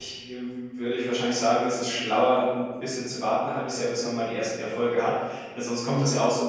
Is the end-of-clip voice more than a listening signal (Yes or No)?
No